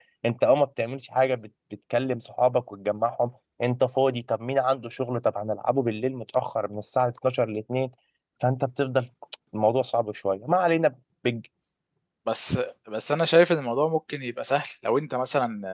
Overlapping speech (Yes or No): No